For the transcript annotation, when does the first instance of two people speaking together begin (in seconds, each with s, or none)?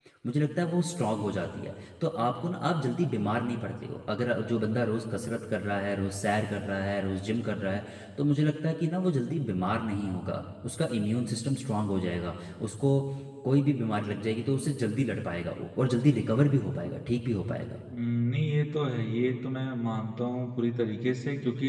none